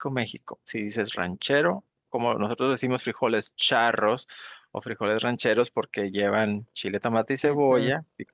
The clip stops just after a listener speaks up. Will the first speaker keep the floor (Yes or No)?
Yes